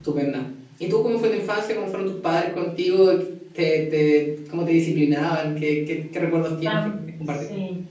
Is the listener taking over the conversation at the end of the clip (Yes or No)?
Yes